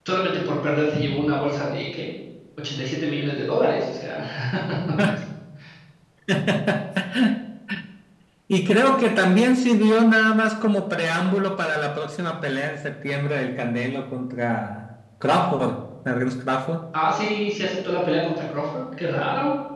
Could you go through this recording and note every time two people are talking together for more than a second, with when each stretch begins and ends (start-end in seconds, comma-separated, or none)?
none